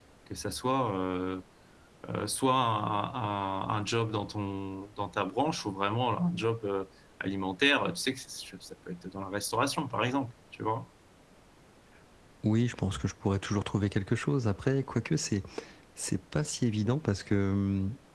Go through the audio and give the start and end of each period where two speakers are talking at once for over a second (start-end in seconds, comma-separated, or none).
none